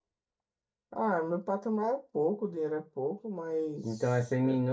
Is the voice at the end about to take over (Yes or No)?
Yes